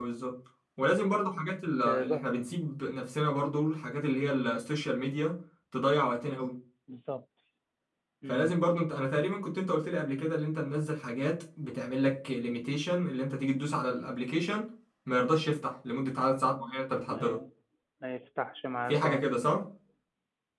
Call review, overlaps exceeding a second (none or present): none